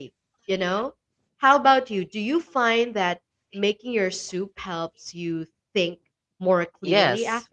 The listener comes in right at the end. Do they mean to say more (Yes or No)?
Yes